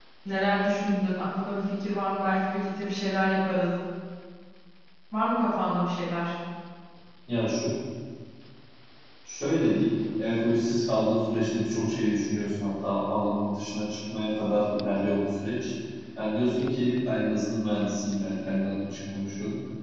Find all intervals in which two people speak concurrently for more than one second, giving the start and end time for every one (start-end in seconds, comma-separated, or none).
none